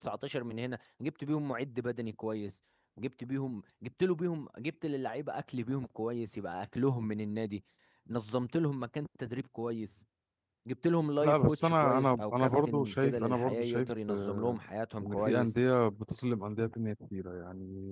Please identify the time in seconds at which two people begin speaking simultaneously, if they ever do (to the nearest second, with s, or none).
11 s